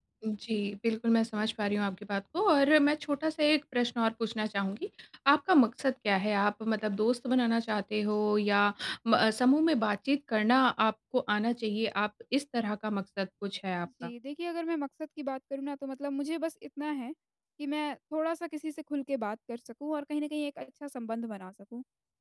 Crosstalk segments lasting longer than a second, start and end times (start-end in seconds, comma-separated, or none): none